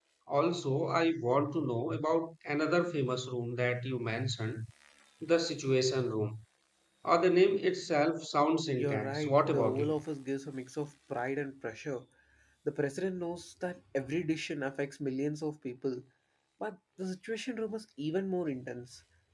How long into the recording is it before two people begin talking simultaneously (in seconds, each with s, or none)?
8.7 s